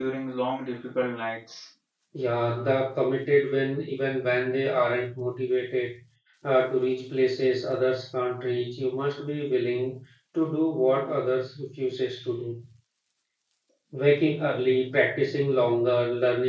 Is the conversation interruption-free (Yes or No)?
Yes